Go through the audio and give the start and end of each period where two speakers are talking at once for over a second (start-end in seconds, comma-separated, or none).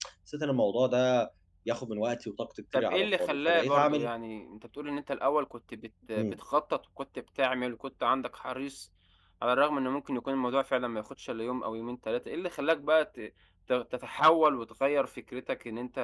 2.8-4.1